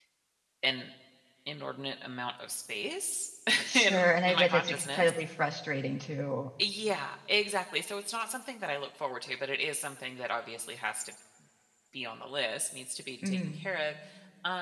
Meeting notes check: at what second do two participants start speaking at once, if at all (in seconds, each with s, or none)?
3.7 s